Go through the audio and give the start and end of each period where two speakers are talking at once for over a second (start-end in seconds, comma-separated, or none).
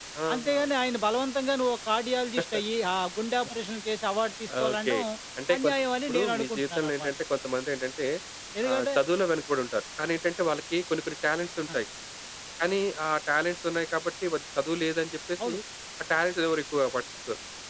5.6-7.1